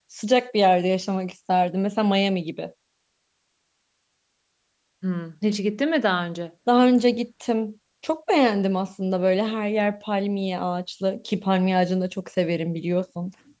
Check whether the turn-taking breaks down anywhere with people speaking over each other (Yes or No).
No